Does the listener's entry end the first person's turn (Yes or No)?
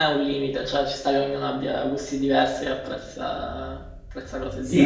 Yes